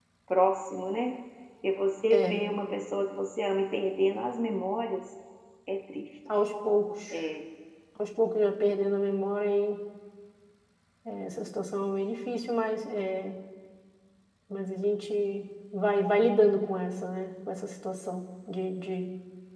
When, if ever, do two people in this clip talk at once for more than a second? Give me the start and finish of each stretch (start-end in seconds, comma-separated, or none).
none